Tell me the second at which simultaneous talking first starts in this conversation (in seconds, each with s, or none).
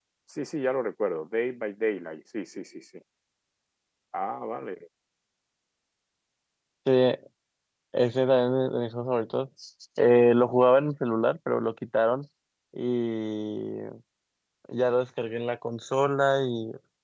none